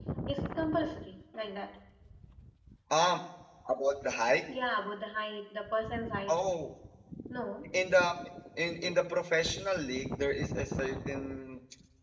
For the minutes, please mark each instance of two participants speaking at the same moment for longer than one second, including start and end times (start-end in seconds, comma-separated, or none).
none